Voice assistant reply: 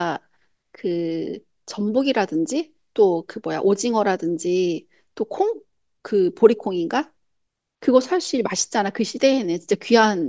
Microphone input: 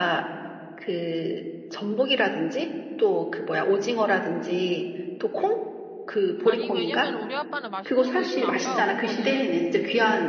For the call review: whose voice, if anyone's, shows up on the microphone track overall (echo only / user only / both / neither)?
both